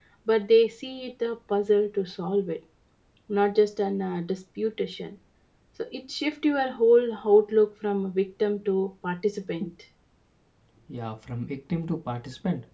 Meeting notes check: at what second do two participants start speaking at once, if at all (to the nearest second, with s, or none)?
none